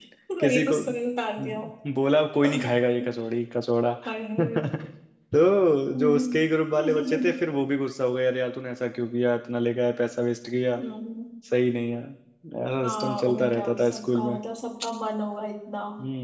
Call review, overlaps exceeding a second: present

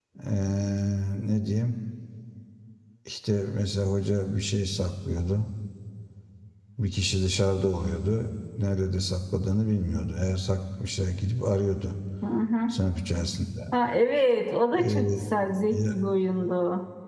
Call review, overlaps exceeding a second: none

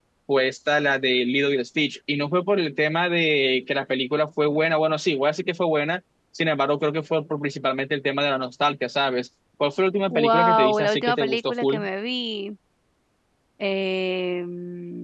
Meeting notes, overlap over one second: present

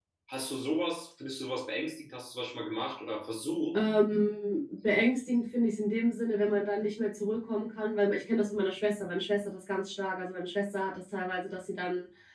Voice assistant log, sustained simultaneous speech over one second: none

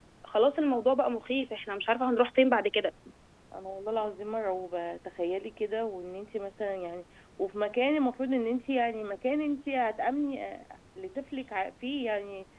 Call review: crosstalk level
none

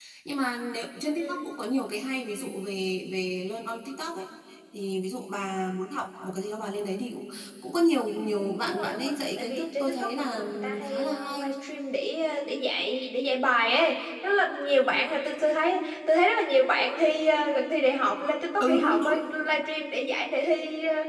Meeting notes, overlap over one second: present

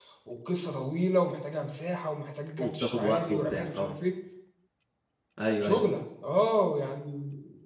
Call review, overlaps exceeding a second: present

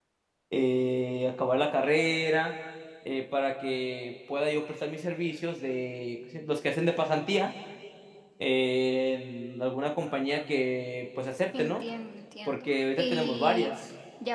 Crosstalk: present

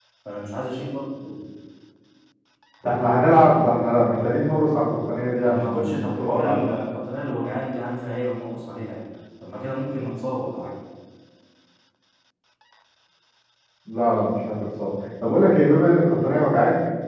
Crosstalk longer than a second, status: present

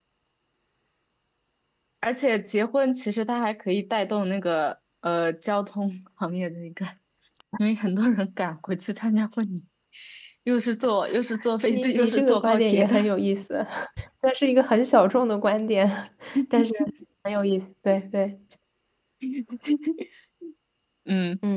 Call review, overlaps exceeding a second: present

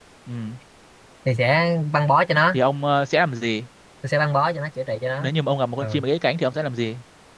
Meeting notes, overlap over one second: none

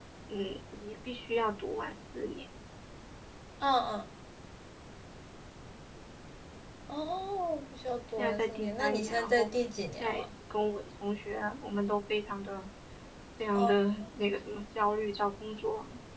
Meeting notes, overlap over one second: present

